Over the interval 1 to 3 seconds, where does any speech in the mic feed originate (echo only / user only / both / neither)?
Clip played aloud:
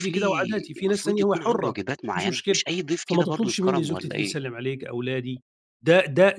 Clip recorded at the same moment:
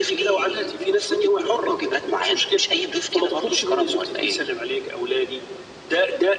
echo only